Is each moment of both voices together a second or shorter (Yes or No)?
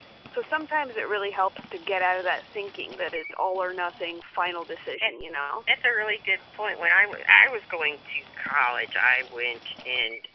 Yes